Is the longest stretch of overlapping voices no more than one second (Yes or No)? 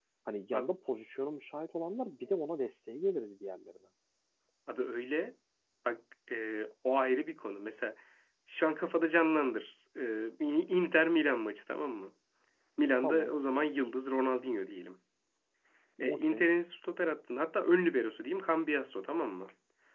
Yes